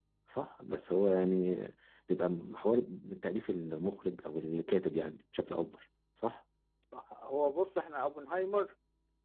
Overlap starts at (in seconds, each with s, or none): none